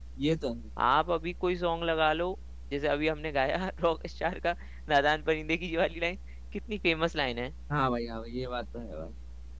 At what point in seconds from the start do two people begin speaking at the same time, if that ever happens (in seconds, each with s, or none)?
none